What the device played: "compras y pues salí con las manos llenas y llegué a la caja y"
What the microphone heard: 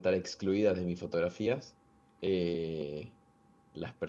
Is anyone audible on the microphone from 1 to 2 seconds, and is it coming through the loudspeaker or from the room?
user only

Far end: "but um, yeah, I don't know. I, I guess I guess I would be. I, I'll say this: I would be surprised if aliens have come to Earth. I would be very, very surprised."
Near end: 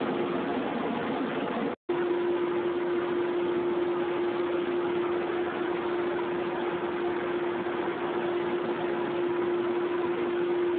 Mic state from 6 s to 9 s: neither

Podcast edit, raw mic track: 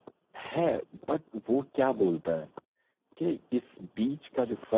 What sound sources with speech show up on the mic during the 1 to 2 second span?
user only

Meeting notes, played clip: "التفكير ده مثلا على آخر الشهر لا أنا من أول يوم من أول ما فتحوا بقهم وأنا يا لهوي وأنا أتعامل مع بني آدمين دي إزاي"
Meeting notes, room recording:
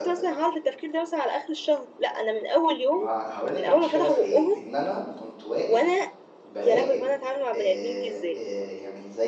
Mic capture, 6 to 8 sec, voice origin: both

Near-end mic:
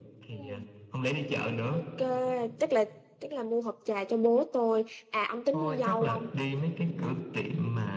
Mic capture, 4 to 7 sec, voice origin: both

